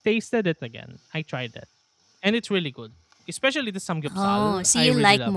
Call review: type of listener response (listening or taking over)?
taking over